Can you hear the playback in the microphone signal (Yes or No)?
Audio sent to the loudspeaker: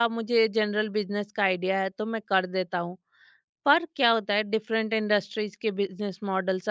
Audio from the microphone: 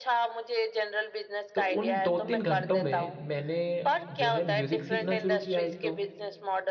Yes